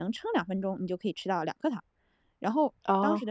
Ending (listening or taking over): listening